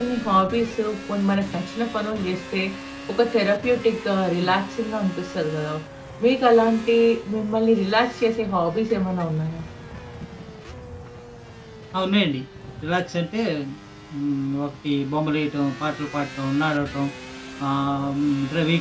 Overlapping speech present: No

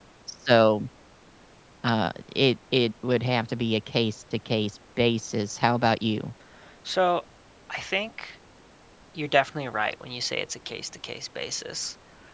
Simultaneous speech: No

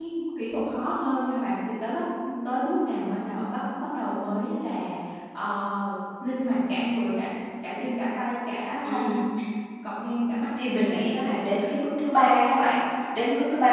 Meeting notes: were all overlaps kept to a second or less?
Yes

